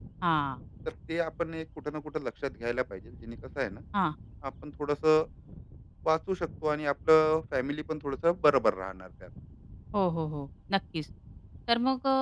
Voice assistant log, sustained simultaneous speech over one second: none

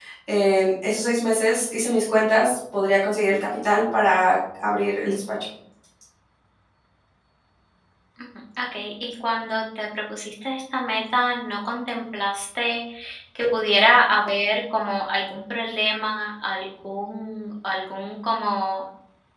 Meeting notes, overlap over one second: none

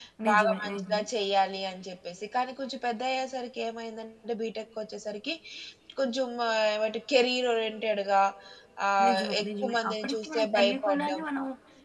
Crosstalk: present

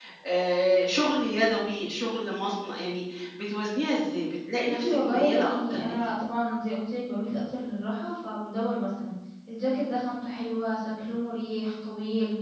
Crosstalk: present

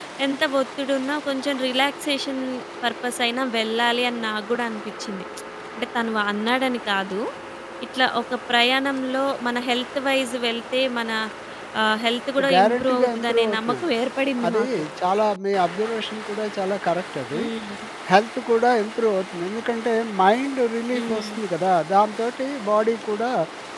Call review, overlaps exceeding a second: present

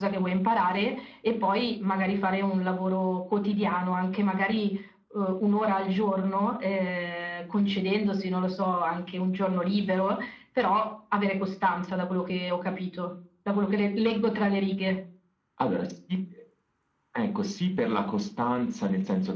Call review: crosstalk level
none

